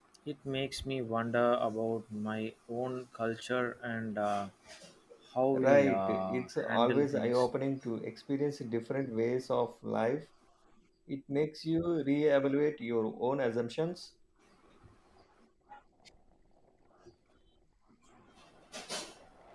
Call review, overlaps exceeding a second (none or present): present